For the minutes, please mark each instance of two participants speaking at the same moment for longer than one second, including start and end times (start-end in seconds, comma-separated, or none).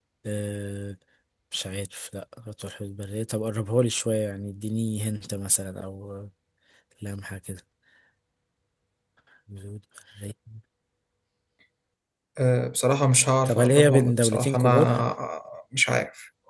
13.4-14.9